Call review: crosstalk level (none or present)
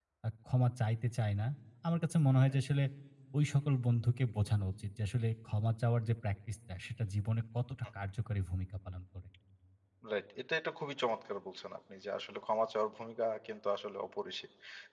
none